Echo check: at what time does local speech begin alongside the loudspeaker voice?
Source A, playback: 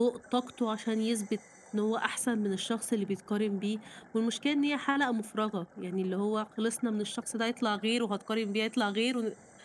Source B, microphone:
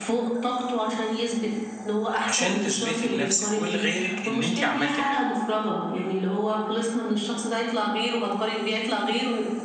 2.2 s

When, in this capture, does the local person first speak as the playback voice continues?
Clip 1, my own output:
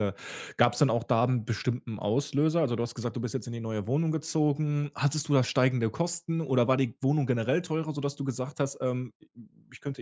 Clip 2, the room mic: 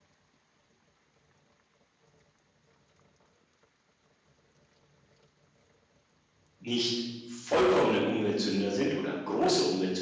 6.6 s

